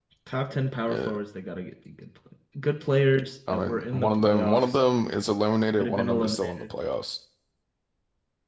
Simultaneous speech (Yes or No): Yes